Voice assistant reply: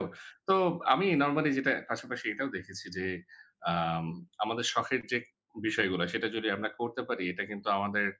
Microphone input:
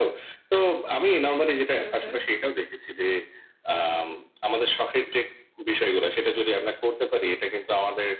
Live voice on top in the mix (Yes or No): No